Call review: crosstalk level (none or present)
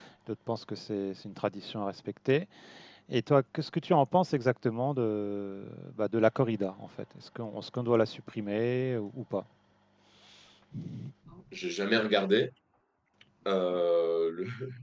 none